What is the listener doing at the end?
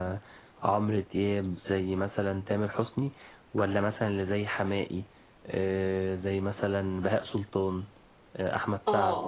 taking over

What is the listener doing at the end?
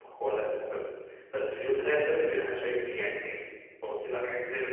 taking over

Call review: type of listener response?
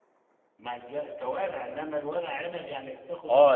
taking over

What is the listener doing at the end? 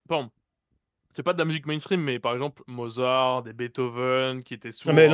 taking over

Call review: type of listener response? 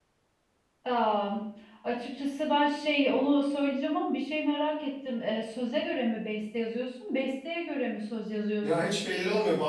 taking over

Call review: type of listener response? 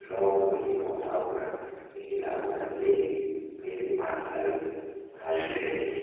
listening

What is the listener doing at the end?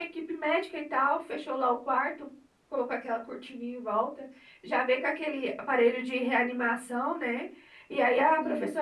listening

